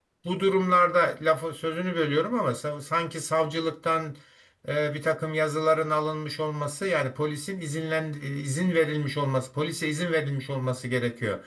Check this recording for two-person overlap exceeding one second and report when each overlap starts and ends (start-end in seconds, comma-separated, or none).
none